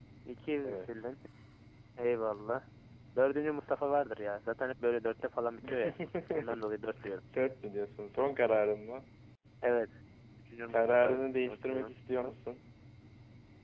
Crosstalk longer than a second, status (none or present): present